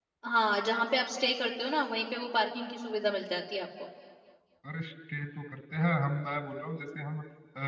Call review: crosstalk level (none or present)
none